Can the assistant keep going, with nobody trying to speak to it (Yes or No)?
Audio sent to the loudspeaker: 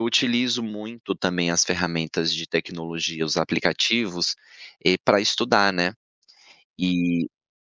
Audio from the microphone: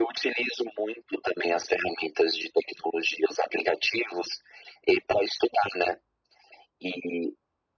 Yes